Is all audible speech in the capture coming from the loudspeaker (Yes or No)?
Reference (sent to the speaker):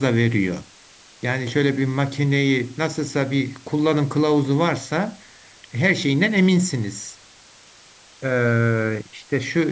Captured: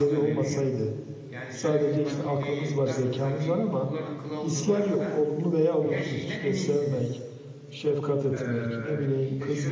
No